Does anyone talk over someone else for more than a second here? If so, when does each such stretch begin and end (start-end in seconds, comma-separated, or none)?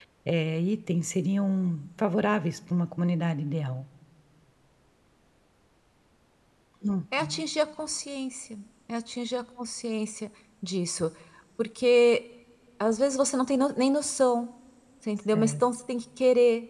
none